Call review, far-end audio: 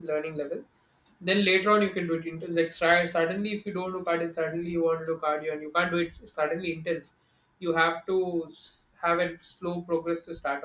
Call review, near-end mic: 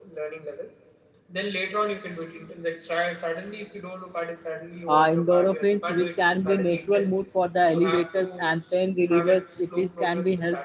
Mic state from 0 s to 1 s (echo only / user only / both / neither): echo only